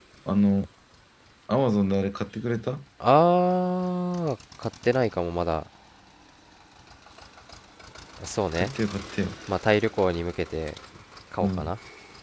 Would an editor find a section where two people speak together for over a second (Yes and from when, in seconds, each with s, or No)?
No